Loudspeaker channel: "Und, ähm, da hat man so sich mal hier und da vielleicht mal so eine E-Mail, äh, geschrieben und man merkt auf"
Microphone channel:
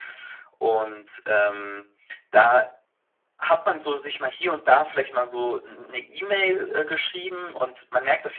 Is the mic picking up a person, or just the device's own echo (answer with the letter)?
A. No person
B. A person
A